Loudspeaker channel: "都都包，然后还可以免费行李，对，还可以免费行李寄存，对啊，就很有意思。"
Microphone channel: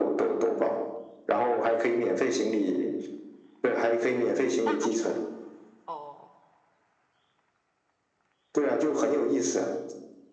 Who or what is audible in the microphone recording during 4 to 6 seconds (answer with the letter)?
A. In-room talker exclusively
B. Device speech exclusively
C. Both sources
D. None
C